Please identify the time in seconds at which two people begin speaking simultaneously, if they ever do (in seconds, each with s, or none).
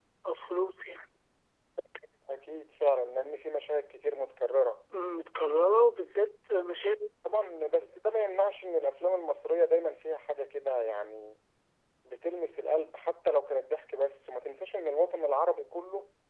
none